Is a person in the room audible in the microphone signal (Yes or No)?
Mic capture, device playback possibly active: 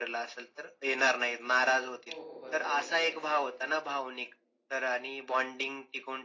Yes